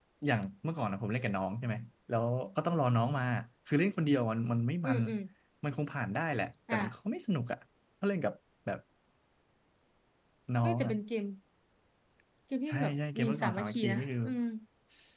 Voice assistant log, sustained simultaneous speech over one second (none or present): present